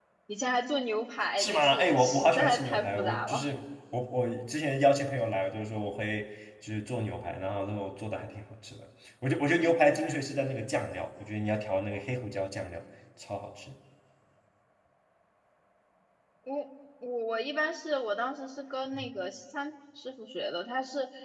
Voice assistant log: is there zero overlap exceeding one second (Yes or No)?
No